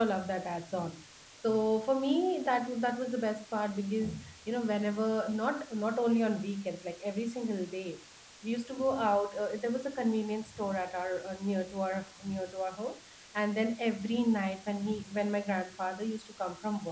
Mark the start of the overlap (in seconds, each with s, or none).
none